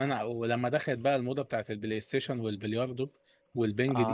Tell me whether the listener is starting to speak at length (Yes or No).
Yes